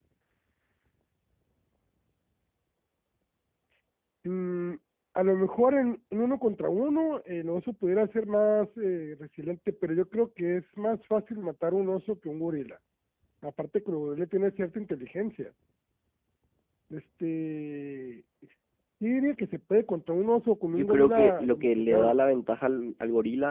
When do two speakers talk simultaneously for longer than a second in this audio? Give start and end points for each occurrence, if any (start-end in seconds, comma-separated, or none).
20.7-22.2